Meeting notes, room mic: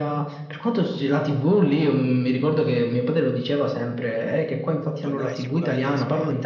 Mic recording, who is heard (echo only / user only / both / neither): both